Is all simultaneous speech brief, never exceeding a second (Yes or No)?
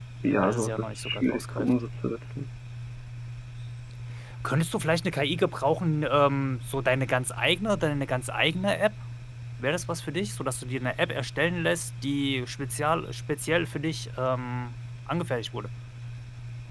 No